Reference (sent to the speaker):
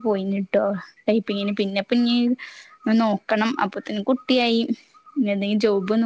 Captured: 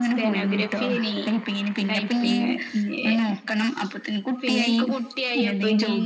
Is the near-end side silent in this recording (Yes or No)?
No